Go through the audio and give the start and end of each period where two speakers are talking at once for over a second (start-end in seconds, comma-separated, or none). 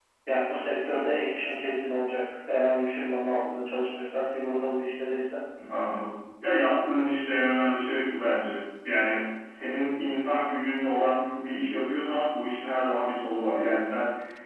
none